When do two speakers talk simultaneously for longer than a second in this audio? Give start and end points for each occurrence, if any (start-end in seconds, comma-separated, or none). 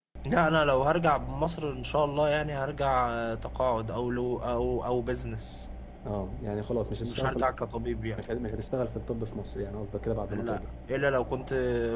none